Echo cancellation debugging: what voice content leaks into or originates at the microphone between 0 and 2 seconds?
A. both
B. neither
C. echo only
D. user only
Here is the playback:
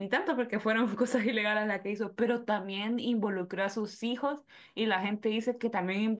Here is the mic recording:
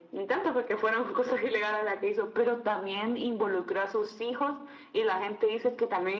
C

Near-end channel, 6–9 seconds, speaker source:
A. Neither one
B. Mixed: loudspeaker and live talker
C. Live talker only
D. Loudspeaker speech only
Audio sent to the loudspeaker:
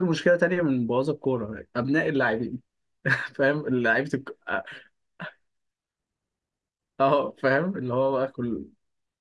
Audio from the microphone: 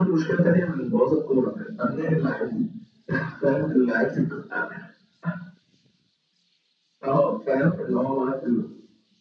D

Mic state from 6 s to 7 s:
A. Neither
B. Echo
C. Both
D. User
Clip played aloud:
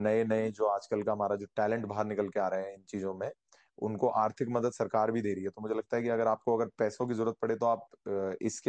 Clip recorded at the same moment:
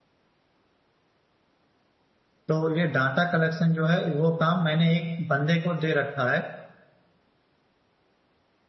D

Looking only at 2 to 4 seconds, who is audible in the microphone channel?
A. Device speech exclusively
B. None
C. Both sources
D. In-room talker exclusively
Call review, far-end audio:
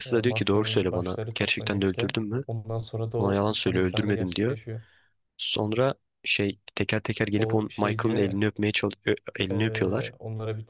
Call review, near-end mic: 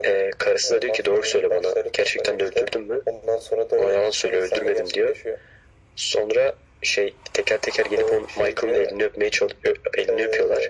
A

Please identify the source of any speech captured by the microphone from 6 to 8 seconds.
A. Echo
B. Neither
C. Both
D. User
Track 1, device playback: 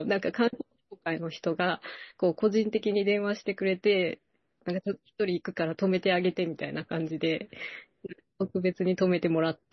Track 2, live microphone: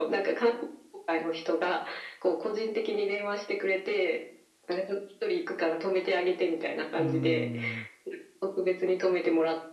C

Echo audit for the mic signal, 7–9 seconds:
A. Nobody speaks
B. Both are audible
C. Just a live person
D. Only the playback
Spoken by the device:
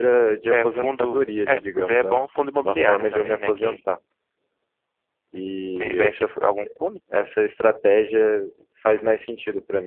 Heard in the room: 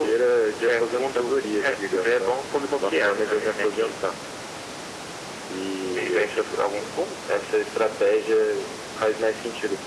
D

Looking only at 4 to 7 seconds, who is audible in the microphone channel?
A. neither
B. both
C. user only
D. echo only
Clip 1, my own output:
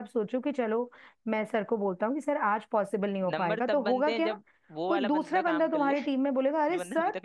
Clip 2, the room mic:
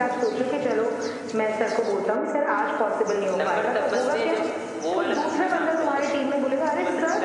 D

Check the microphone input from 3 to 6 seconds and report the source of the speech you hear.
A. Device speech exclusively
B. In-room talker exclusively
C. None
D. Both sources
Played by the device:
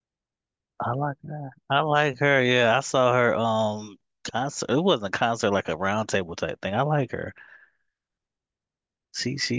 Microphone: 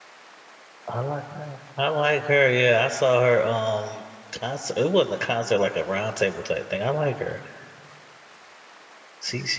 A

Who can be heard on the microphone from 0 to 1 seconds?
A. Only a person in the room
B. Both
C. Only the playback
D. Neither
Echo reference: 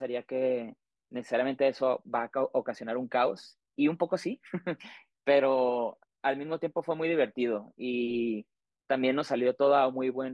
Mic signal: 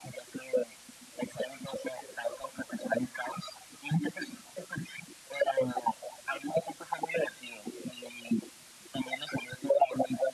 C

